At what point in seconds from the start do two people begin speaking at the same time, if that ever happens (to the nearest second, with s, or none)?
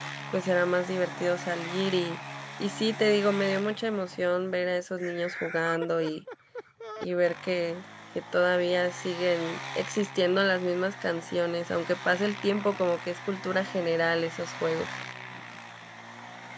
none